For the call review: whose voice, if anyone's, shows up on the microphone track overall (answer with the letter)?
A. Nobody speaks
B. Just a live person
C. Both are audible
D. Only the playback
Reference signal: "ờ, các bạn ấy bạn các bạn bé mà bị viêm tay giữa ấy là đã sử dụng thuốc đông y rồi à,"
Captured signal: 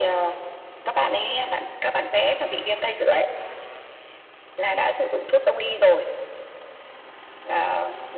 D